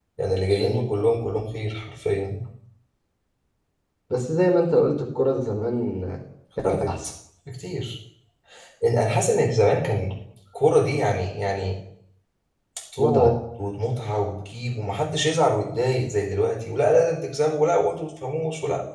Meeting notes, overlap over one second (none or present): none